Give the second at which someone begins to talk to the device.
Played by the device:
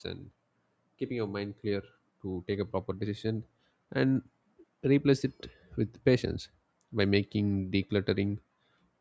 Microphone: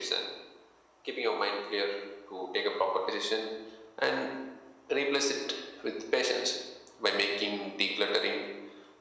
none

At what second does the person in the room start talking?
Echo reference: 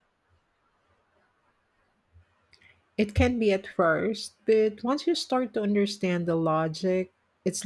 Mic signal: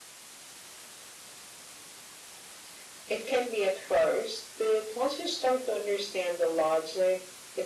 none

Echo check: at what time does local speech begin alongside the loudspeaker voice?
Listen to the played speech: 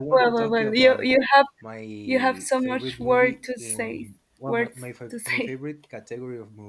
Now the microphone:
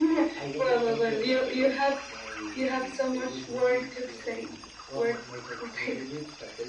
none

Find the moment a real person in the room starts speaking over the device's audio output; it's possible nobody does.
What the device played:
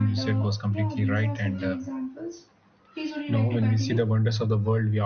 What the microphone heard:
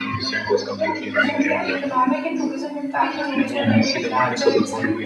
1.2 s

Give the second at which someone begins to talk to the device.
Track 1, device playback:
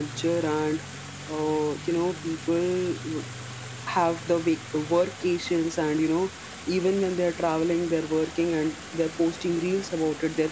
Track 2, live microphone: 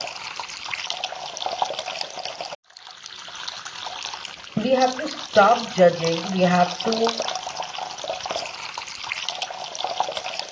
4.6 s

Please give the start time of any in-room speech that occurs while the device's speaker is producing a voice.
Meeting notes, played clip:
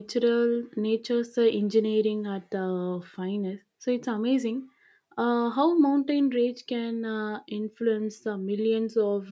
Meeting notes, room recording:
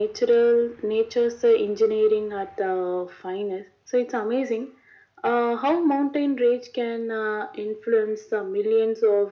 none

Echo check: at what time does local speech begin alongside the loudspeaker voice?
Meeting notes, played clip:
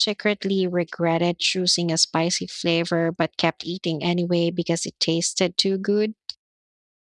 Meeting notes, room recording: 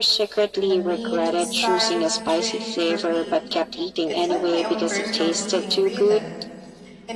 0.7 s

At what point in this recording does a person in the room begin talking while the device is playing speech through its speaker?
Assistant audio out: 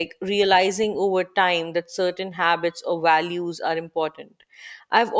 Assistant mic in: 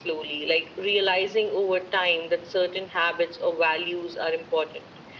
none

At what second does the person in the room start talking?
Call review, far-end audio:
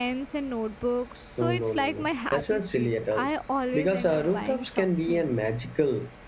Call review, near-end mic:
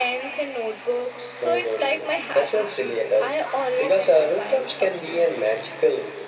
none

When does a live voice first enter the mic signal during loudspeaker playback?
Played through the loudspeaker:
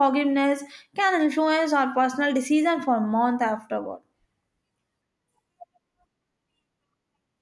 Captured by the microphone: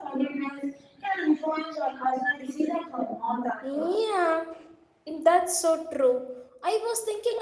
3.6 s

